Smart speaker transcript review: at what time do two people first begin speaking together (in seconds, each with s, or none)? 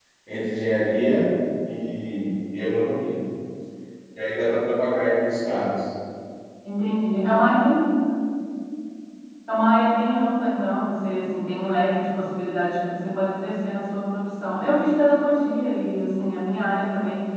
none